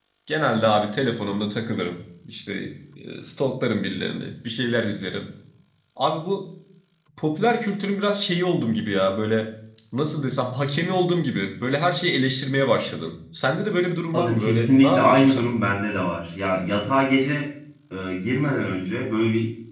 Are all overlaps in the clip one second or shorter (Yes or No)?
No